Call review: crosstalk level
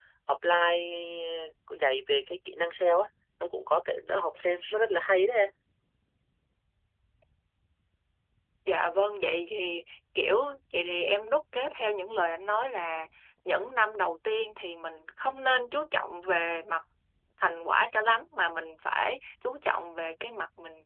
none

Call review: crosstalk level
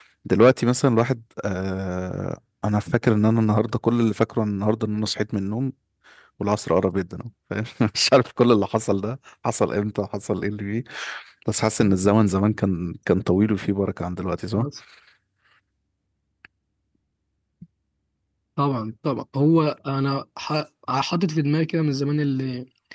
none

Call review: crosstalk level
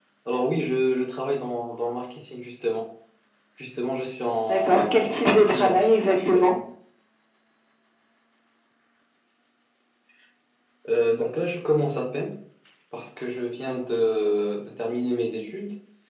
present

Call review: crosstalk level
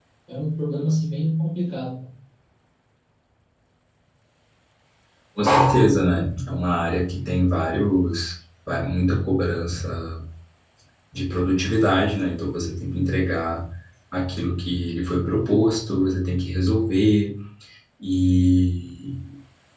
none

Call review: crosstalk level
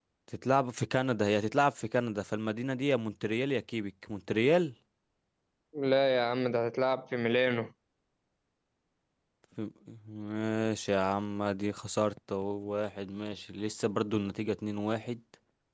none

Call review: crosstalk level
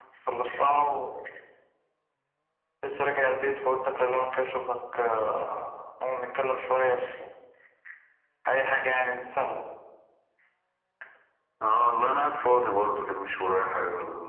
none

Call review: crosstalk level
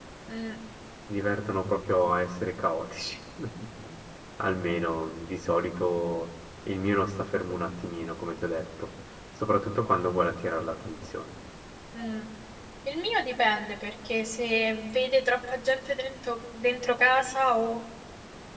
none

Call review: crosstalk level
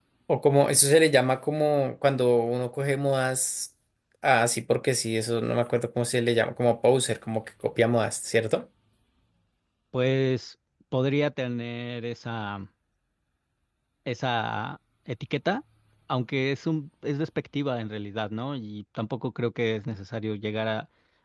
none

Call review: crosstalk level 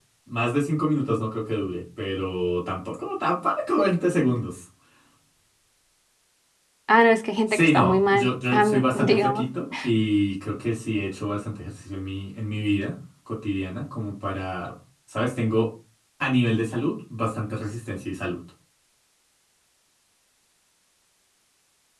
present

